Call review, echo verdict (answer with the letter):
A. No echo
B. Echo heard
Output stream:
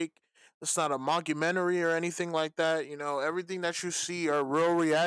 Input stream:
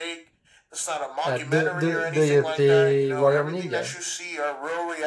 B